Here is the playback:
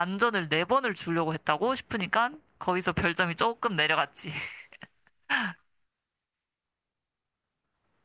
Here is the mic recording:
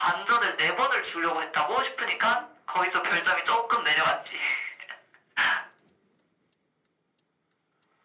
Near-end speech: none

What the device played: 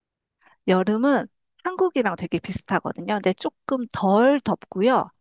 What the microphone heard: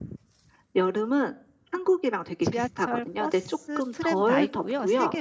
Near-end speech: present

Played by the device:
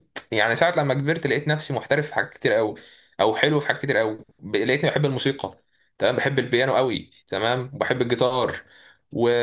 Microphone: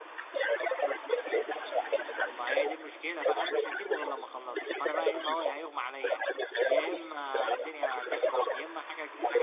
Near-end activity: present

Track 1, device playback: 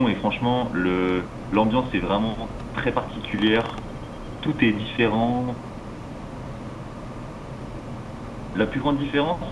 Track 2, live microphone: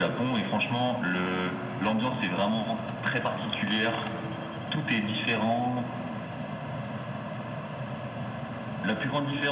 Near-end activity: none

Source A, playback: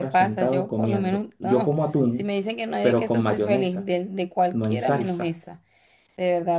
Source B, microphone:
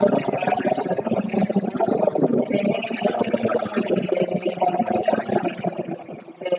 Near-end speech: none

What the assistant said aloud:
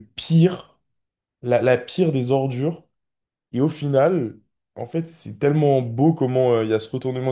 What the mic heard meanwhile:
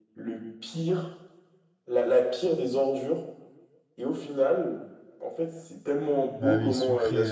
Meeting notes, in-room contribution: present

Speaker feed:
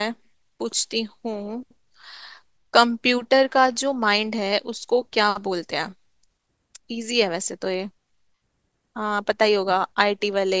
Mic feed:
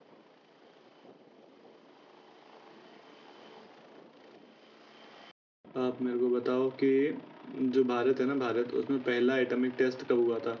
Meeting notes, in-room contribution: present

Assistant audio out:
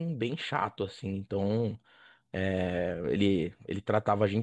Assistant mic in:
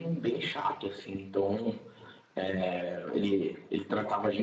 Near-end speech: none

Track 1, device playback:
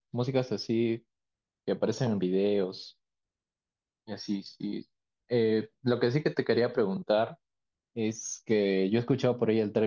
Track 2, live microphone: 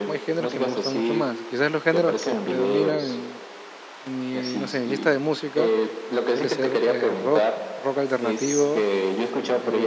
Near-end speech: present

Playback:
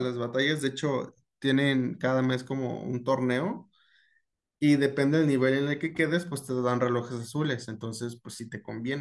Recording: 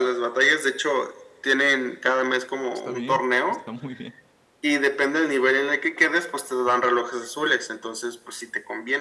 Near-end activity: present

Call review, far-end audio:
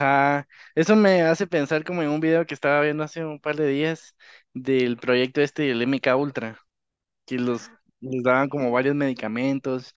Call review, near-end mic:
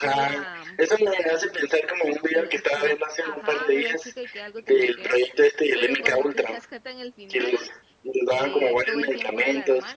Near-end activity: present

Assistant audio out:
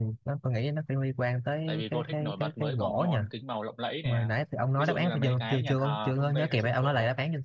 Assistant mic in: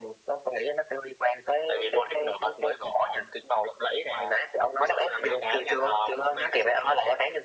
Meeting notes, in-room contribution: none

